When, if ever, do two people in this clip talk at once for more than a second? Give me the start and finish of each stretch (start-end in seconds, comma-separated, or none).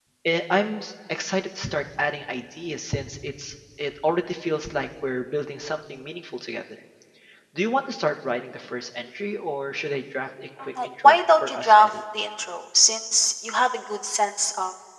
10.6-11.9